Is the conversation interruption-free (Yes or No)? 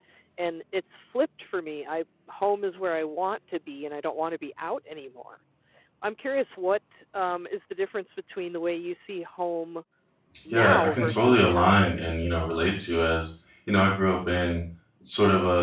No